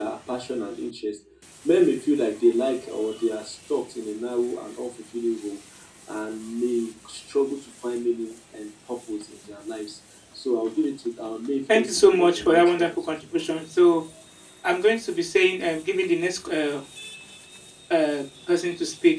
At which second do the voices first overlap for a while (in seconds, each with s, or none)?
11.7 s